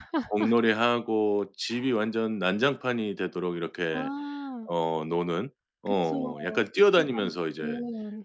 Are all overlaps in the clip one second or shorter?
No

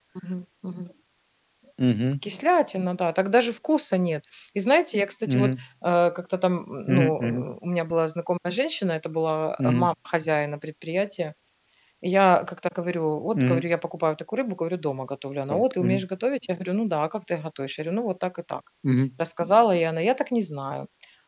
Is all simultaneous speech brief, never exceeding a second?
Yes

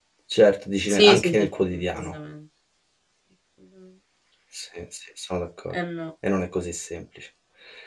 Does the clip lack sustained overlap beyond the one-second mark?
No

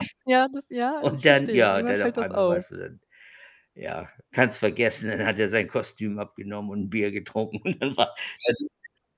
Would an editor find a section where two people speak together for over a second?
Yes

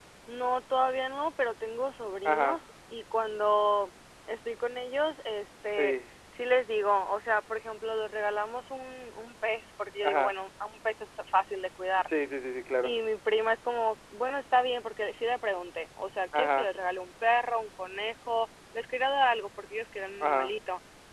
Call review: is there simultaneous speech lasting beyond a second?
No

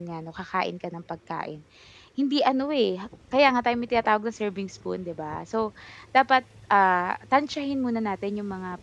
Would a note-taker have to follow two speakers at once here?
No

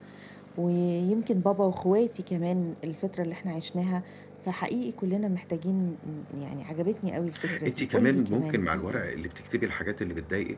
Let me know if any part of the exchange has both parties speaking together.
Yes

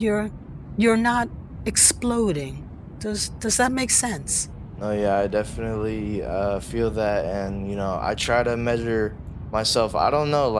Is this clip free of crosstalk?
Yes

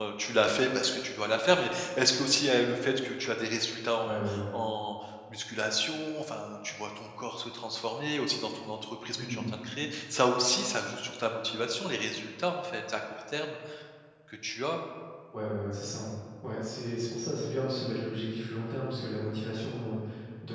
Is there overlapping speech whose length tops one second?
No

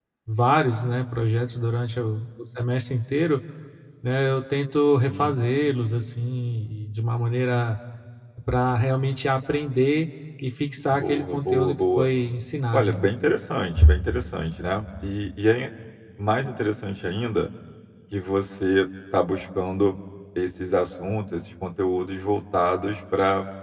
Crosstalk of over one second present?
Yes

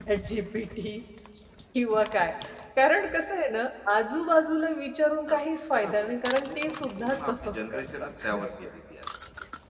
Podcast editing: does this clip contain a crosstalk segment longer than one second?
Yes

